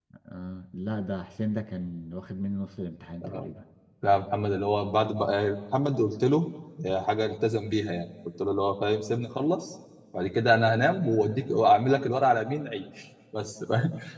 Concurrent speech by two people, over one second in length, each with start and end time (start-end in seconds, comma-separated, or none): none